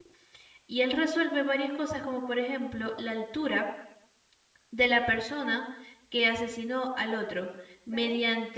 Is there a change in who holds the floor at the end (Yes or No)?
No